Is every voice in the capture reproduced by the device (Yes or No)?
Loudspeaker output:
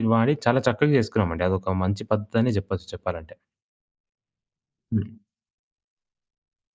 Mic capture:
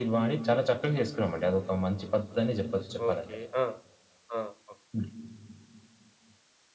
No